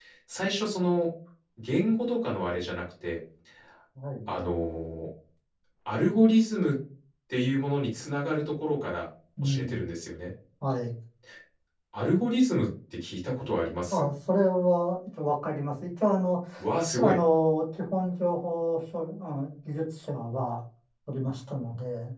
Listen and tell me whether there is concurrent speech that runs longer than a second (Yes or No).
No